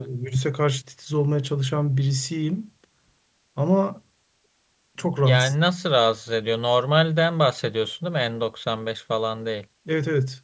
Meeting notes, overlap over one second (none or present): none